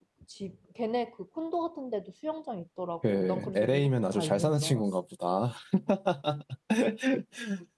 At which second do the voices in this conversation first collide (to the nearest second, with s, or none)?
3 s